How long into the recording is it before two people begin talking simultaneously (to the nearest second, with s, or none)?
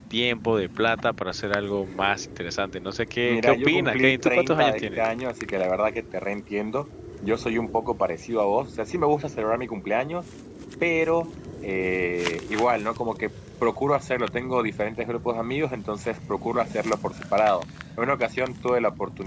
3 s